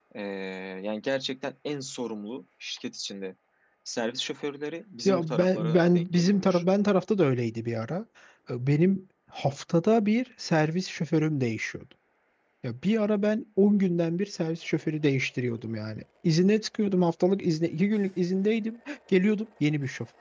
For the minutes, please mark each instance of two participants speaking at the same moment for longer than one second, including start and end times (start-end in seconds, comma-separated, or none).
5.0-6.6